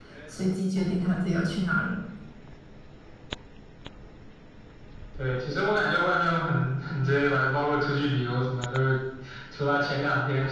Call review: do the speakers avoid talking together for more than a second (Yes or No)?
Yes